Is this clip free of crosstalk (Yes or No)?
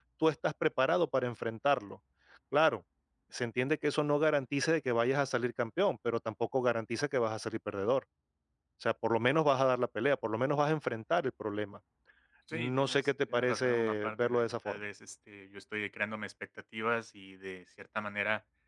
No